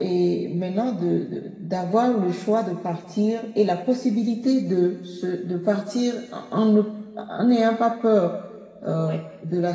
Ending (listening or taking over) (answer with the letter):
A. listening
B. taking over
A